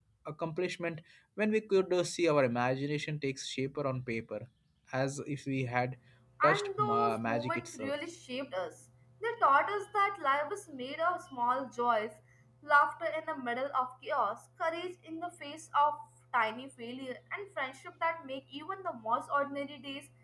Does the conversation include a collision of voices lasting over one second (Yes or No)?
Yes